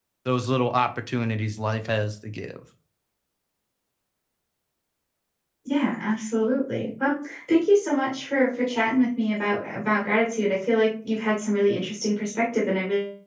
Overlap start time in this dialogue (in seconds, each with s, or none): none